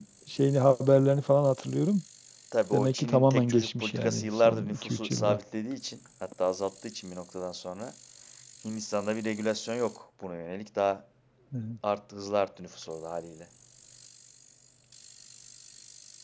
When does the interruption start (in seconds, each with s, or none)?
2.7 s